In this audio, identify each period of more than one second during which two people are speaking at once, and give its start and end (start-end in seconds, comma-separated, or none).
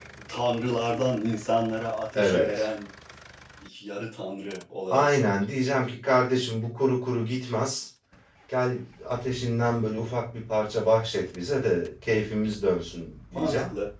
none